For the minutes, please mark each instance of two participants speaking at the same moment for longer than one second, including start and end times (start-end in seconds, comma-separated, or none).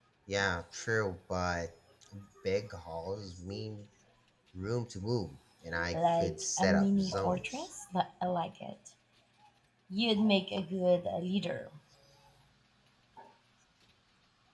5.9-7.7